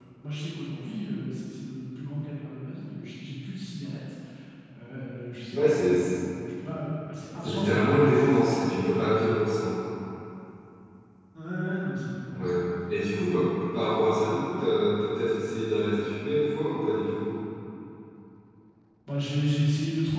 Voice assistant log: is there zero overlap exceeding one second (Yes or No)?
No